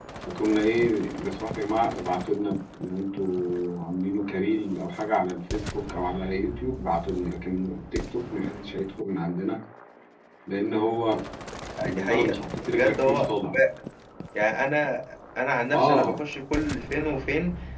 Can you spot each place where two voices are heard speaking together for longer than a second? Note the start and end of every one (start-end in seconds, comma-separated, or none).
11.9-13.6